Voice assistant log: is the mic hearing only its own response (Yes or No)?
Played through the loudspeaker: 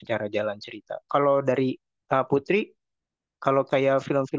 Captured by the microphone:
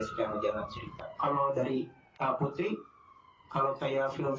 Yes